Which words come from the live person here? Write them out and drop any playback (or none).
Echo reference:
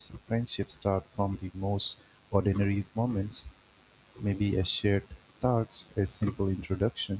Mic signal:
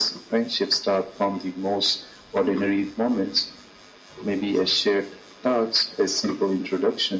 none